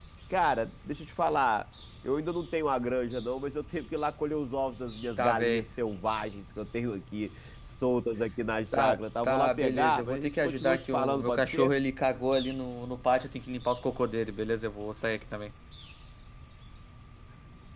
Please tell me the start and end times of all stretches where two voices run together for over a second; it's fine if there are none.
8.8-11.7

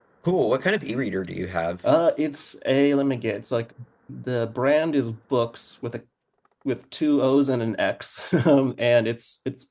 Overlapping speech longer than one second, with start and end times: none

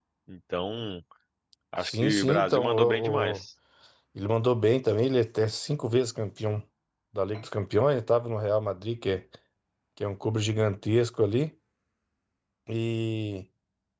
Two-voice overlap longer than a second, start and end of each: 1.8-3.4

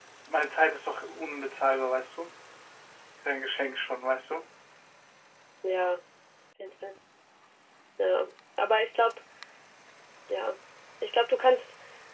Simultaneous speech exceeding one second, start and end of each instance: none

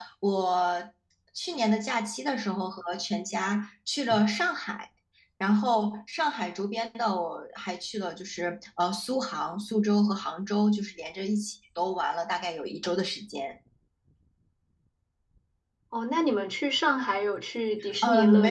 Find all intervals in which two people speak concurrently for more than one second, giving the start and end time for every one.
none

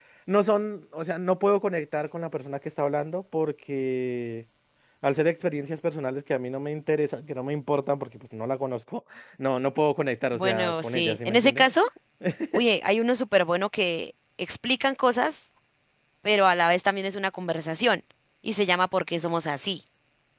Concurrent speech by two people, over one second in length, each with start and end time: 10.3-11.6

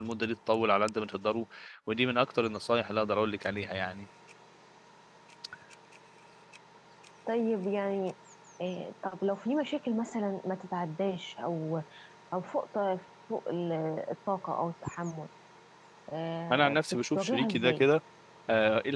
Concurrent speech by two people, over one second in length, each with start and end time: 16.5-17.8

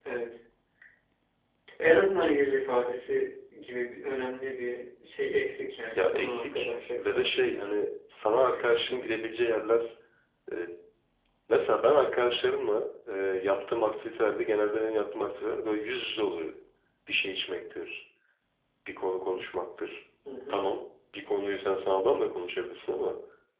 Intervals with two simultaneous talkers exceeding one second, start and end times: 5.9-7.7

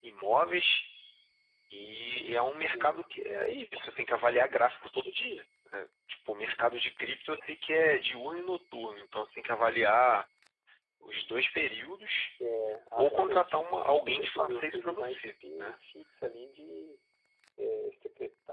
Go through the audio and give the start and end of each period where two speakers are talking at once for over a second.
13.0-15.8

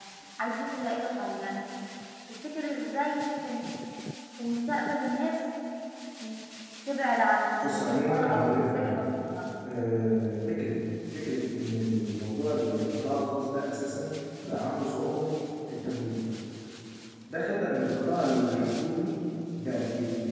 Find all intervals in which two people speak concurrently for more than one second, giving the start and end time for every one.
7.6-9.0

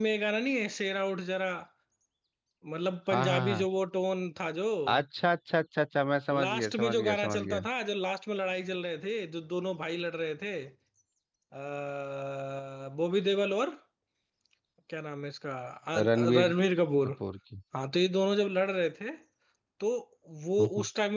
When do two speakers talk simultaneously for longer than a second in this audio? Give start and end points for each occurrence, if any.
6.3-7.6

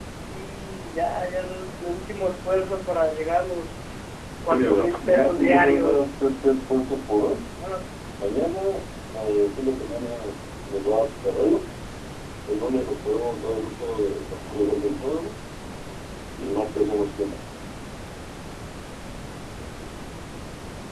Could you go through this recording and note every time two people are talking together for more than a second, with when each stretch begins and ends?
4.5-6.1

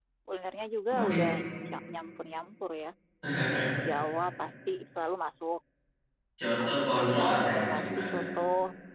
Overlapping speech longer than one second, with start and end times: 6.6-8.2

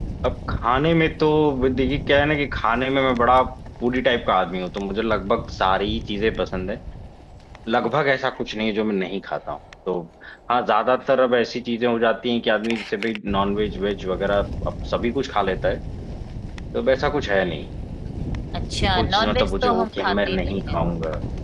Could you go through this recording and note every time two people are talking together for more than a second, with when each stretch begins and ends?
19.0-20.5

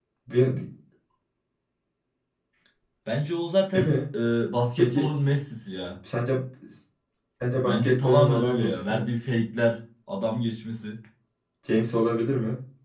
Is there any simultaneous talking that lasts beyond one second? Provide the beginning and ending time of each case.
7.6-9.1

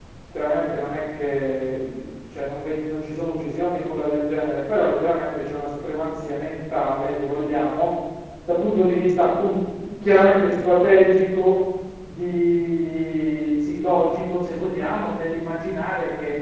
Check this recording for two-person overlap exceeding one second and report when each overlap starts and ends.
none

